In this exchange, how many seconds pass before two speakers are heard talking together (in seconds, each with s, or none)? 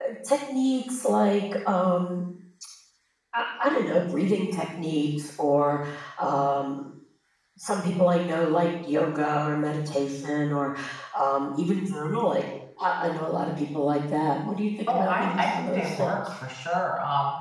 14.9 s